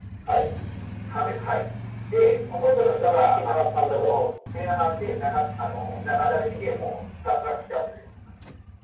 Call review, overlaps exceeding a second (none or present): present